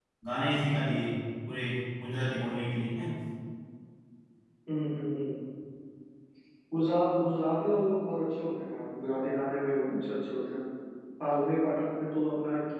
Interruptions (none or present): none